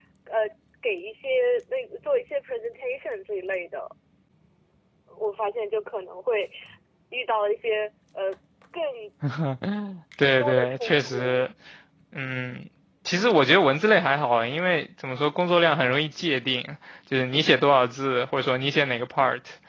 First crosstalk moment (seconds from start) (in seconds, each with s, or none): 10.2 s